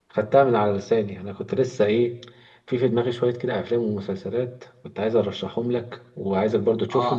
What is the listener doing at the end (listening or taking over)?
listening